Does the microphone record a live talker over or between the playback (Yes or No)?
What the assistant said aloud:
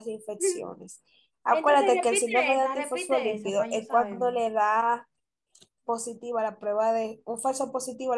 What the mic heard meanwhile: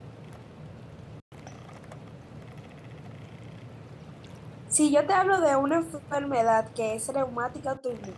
Yes